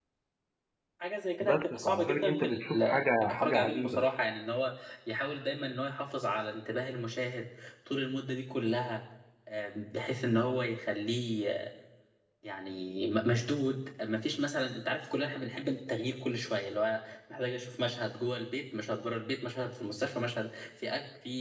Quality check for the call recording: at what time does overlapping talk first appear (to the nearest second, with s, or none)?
1 s